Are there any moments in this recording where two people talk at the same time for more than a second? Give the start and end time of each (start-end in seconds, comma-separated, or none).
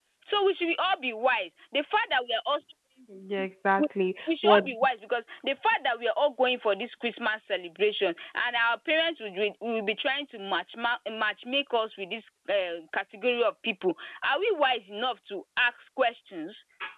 none